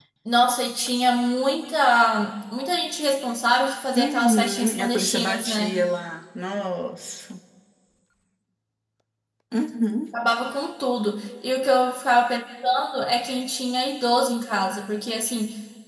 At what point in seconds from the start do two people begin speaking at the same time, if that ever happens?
4 s

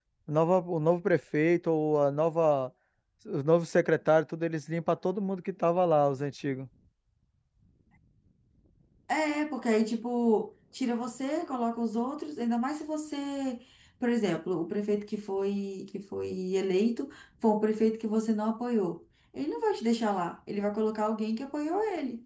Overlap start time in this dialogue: none

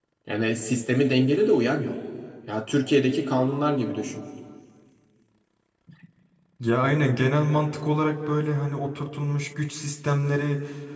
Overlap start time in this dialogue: none

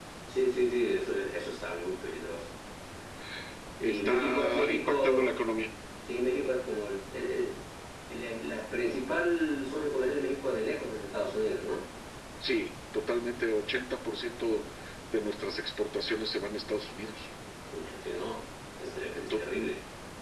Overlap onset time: 4 s

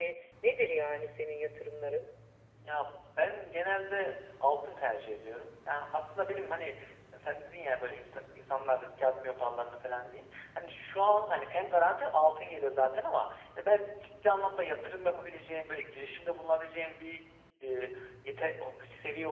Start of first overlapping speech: none

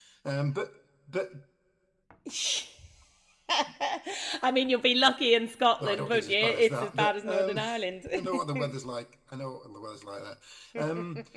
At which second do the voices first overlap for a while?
6 s

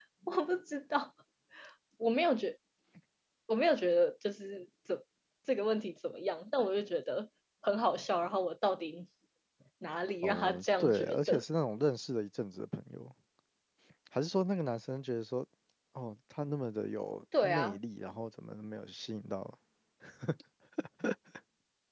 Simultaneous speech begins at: 10 s

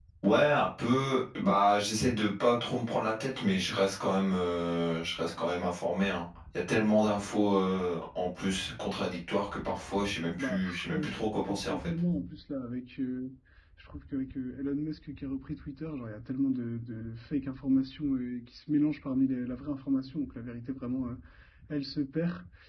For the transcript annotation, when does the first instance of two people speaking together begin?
10 s

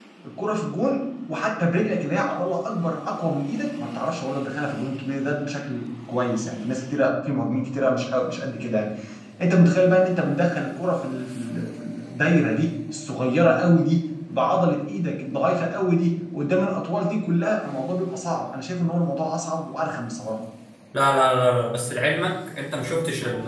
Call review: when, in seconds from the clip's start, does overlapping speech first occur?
none

